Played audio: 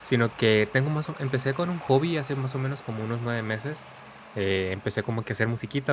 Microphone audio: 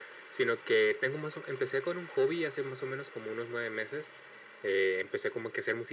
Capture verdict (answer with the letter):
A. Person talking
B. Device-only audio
B